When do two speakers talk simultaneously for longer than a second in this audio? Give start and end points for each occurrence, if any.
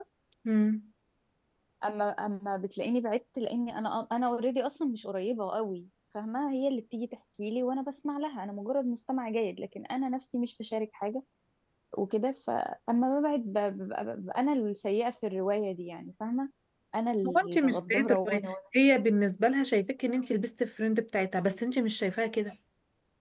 17.3-18.5

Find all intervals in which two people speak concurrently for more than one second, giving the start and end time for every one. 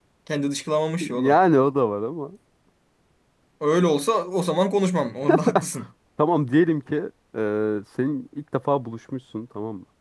none

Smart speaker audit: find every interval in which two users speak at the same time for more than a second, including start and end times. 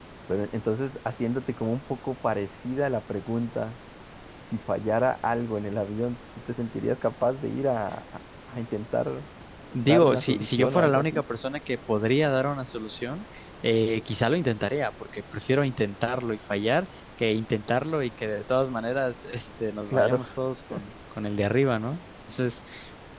9.8-11.2

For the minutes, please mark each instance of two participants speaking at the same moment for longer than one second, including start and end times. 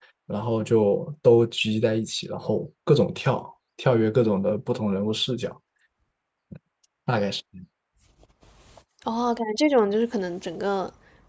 none

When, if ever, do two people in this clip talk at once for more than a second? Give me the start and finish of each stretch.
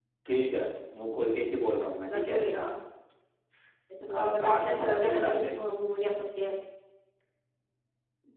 4.1-5.6

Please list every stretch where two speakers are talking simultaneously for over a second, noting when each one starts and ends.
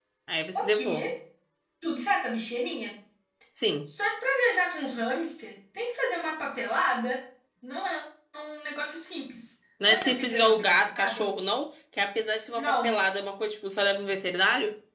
9.9-11.3

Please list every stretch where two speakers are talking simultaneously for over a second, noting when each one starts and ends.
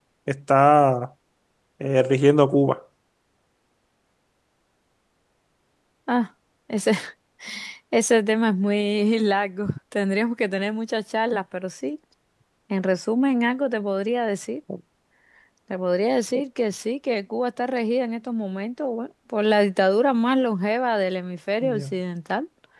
none

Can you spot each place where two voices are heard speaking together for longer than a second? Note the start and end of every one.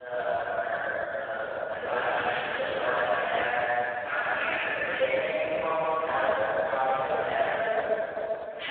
6.1-7.5

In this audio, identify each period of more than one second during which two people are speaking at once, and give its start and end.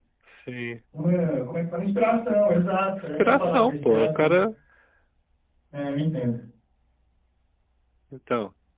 3.2-4.4

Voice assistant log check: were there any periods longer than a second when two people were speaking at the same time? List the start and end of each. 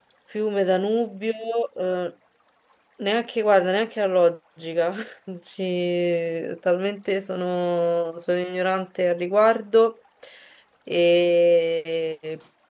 none

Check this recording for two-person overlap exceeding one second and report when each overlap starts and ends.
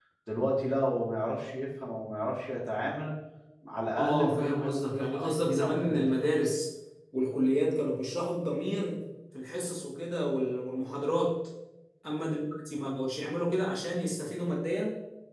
4.0-6.0

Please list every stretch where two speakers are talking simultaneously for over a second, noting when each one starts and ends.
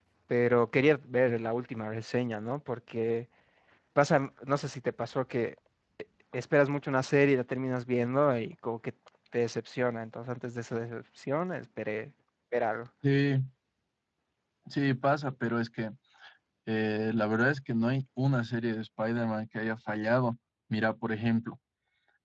none

